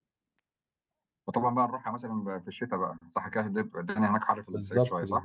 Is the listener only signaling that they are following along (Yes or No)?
No